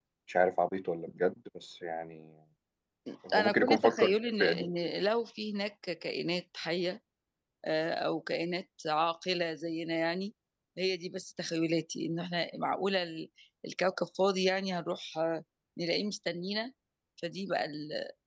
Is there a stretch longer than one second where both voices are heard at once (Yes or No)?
Yes